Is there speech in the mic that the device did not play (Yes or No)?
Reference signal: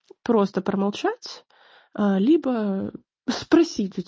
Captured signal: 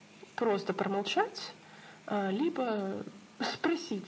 No